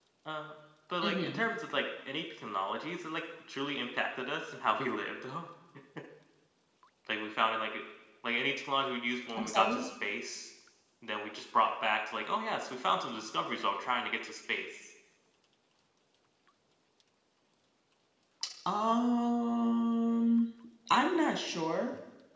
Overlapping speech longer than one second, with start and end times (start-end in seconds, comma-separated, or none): none